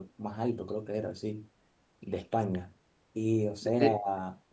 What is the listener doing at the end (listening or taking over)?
listening